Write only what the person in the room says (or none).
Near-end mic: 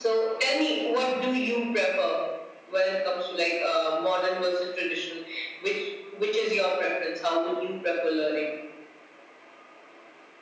none